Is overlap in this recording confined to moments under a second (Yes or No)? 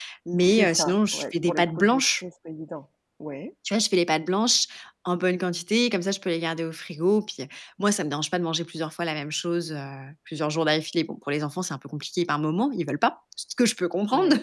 No